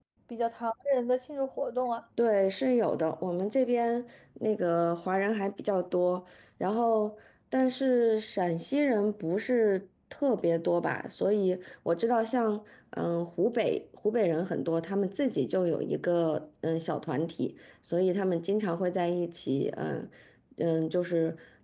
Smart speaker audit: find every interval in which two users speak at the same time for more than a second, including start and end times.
none

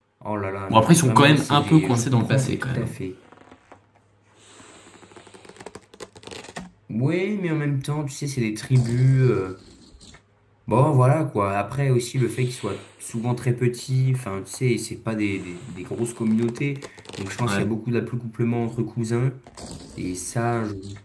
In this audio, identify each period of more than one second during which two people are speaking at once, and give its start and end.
0.7-2.9

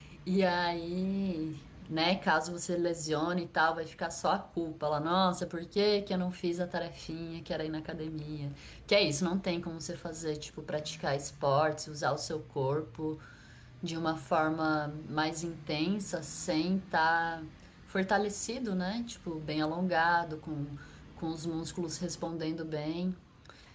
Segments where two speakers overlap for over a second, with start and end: none

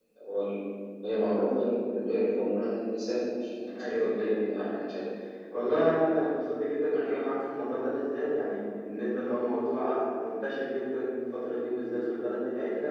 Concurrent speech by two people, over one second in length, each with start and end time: 3.7-5.0

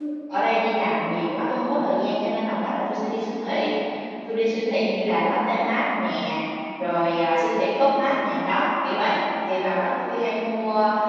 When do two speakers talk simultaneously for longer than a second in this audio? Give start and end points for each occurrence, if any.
none

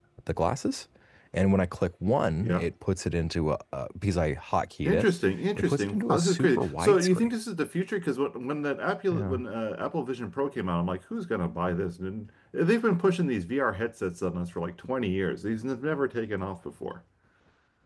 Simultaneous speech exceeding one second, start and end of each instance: 5.6-7.3

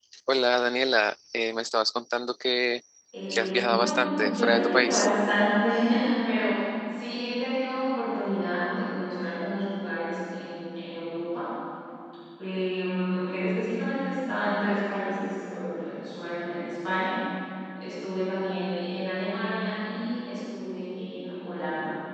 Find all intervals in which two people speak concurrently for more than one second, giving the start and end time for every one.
3.3-5.1

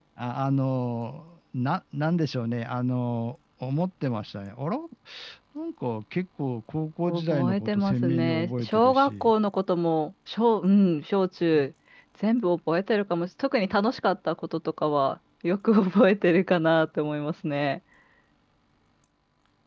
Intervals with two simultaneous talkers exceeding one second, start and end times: 7.0-9.3

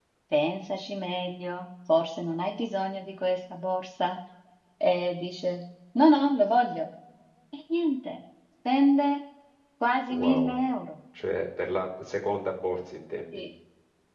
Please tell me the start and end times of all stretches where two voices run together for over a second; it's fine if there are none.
none

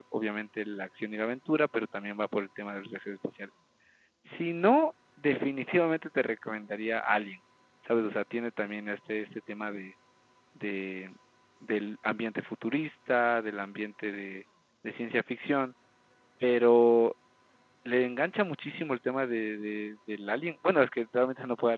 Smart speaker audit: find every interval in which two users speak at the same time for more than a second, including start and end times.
none

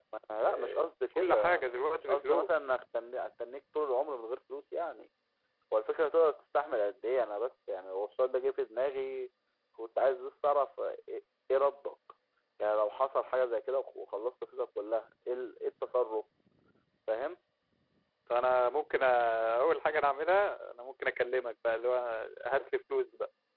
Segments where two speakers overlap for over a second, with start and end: 1.2-2.5

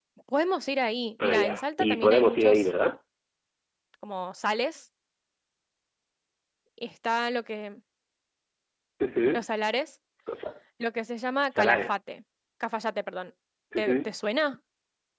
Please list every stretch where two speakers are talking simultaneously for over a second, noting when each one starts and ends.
1.2-2.7

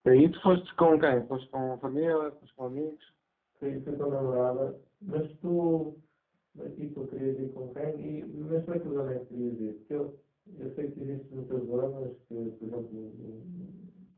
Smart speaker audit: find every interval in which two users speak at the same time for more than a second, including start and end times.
none

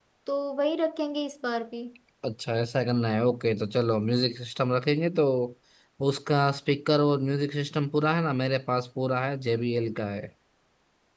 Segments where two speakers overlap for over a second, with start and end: none

